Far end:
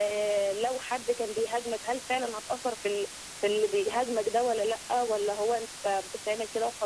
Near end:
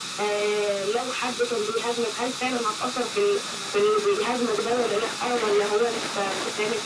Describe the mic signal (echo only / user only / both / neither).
echo only